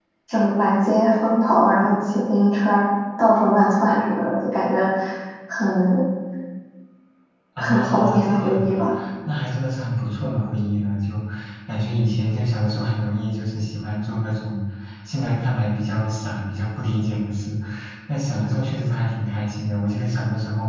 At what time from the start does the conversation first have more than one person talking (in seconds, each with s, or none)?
7.6 s